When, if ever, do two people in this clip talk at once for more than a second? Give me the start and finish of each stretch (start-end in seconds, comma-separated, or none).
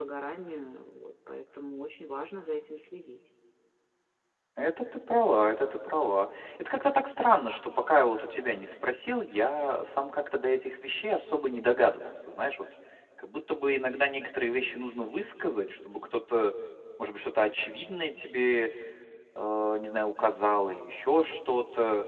none